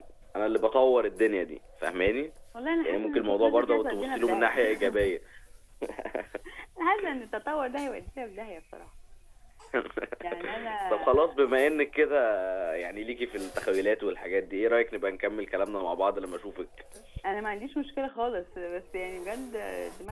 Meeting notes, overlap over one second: present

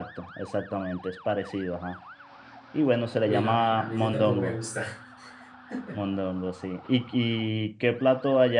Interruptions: present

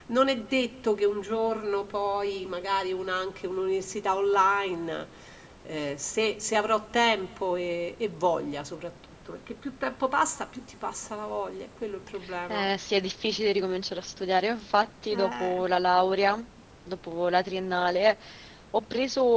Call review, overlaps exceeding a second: none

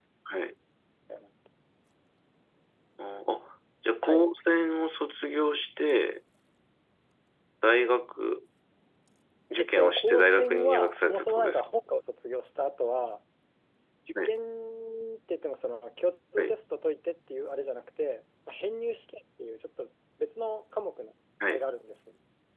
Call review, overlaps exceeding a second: present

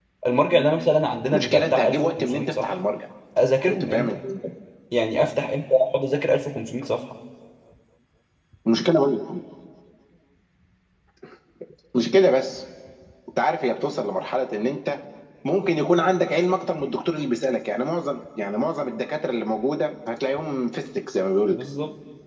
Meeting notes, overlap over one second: present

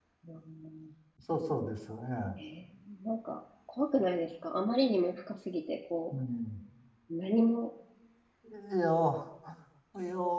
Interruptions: none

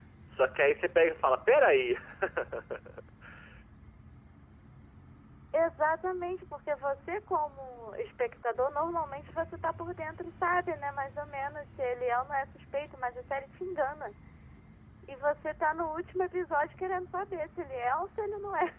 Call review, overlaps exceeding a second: none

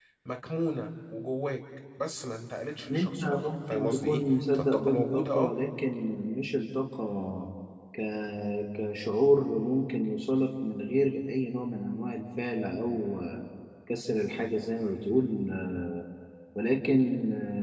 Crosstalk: present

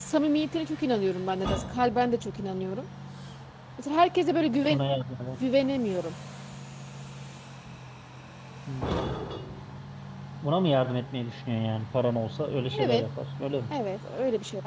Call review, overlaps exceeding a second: none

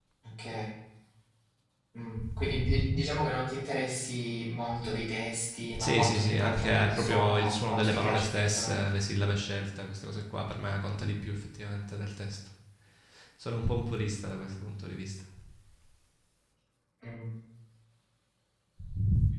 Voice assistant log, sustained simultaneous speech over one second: present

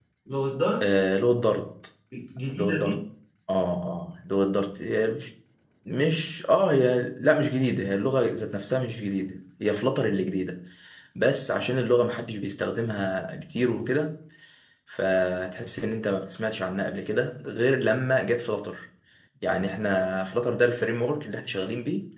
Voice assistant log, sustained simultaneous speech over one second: none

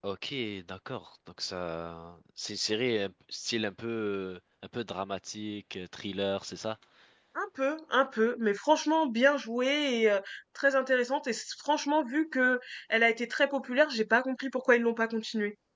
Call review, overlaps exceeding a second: none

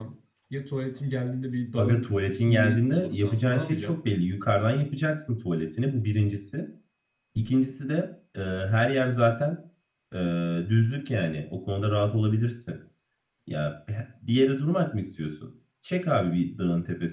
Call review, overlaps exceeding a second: present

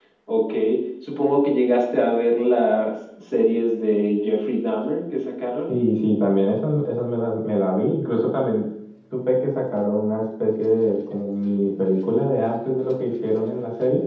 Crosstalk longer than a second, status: none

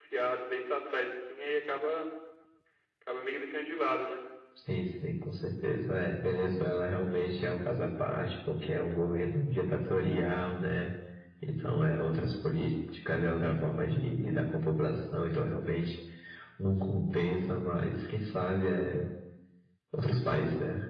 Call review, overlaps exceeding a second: none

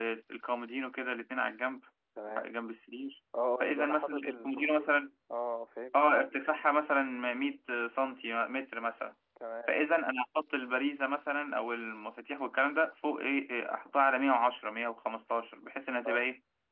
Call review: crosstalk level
present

